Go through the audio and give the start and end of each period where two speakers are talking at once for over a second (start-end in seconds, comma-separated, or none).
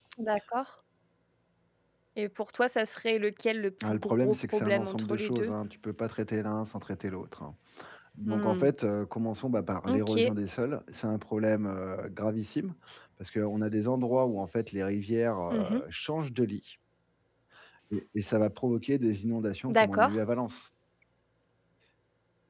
3.9-5.5